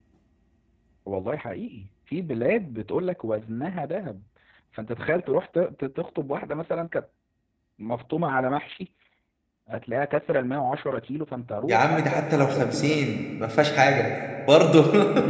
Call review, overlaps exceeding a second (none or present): present